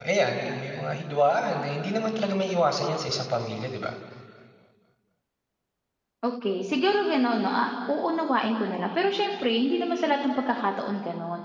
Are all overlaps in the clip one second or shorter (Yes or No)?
Yes